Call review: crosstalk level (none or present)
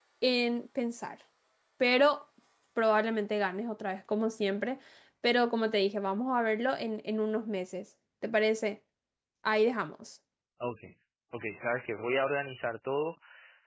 none